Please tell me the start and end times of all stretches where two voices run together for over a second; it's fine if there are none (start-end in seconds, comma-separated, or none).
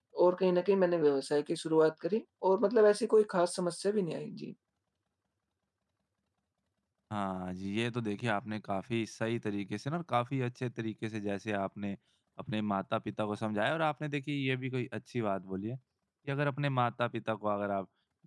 none